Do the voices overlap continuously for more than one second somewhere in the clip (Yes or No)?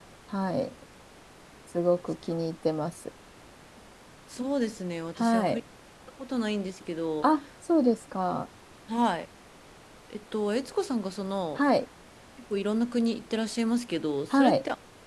No